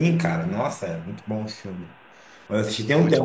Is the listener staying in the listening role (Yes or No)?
Yes